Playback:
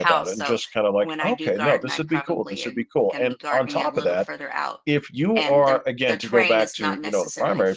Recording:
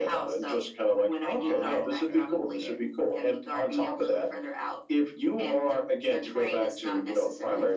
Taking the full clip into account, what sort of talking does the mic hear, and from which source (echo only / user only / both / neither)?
both